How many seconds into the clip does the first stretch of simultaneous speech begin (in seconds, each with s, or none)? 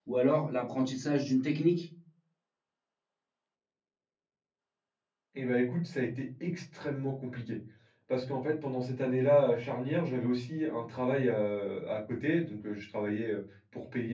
none